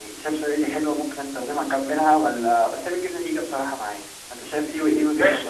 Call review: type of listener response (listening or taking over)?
taking over